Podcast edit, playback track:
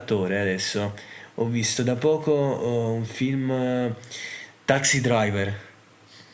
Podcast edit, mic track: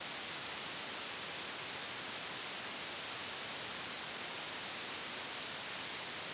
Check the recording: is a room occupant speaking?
No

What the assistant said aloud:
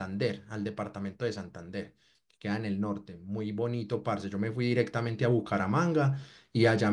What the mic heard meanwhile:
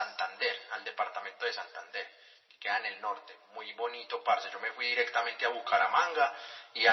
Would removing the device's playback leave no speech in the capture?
Yes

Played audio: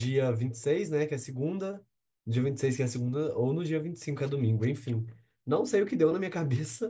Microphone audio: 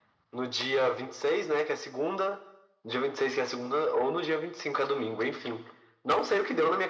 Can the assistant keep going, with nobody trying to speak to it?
Yes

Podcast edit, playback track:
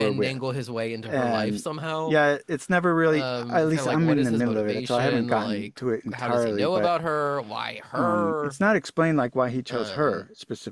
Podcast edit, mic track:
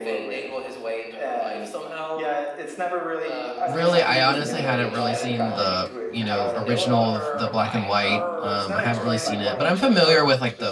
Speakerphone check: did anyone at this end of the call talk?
Yes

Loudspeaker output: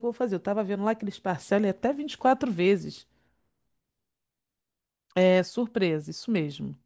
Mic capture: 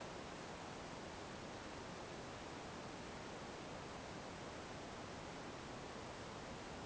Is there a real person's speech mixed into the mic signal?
No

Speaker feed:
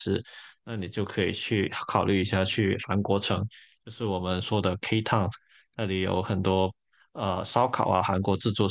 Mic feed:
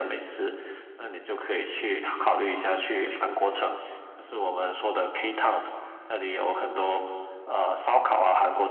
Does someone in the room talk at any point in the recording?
No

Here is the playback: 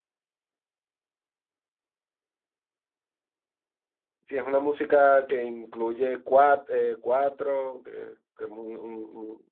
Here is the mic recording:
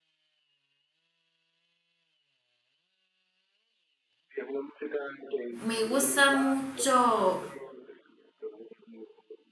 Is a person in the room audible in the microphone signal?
Yes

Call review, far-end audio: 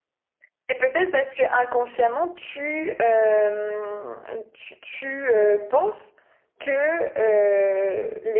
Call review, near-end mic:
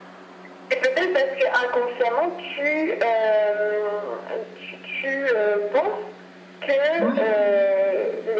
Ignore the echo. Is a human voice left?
Yes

